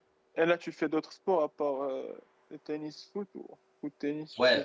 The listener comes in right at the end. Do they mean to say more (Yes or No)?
Yes